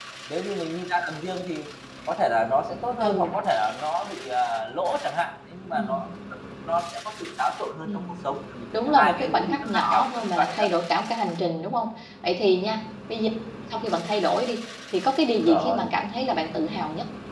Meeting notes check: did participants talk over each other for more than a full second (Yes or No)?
Yes